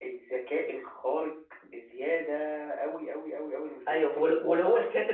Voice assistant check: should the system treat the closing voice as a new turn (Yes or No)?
Yes